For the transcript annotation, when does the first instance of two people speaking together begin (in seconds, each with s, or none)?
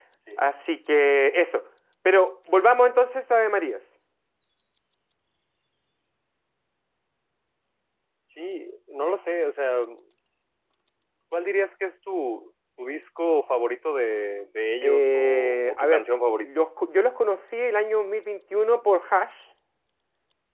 14.8 s